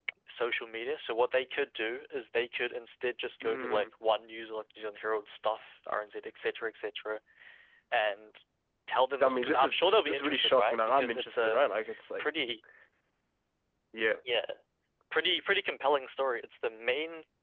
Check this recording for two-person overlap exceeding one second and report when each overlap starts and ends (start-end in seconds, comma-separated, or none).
9.2-11.6